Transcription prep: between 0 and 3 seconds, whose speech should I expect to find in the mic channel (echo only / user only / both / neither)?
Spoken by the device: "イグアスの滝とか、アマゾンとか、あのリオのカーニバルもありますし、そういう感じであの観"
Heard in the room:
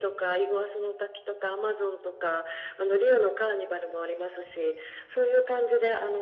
echo only